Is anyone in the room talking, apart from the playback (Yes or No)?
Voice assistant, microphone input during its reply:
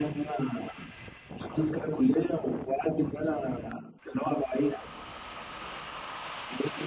No